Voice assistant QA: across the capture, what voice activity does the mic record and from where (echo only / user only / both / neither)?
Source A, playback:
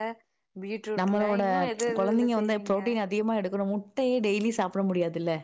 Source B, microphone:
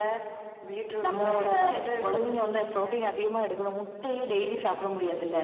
echo only